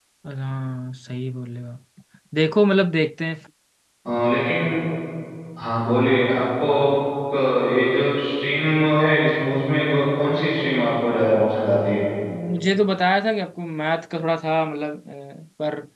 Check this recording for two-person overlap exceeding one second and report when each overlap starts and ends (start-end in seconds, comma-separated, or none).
none